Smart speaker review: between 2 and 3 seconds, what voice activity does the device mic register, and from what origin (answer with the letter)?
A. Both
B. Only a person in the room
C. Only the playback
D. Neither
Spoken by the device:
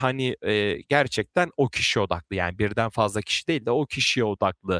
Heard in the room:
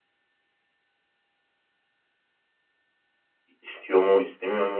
D